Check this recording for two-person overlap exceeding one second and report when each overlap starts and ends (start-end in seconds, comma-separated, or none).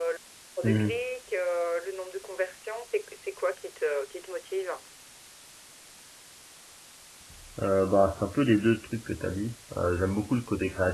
none